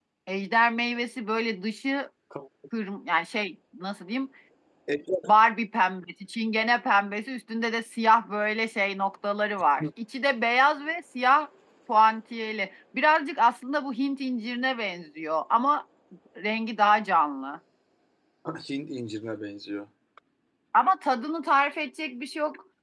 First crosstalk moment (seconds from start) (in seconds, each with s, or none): none